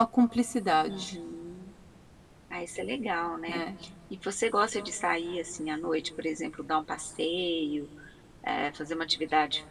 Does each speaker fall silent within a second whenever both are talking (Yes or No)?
Yes